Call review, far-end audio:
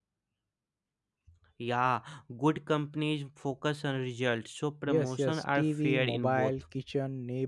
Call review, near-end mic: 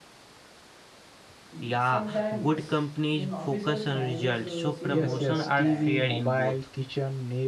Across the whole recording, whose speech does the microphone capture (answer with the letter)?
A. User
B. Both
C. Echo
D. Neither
B